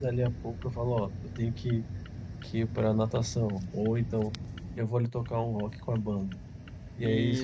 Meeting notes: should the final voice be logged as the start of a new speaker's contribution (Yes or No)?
No